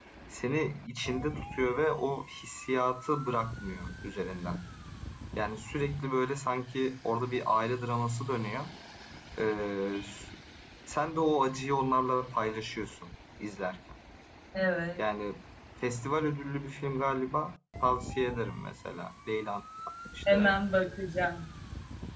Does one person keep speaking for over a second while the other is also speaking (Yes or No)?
No